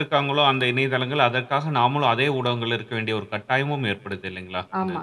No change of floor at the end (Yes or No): No